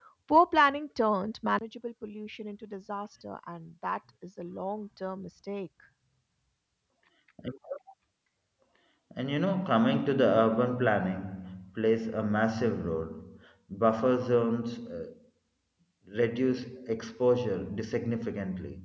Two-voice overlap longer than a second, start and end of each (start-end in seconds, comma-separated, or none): none